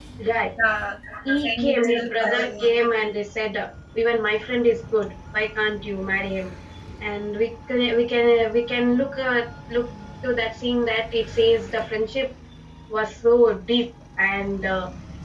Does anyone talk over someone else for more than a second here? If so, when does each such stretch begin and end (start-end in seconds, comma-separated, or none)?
1.4-2.7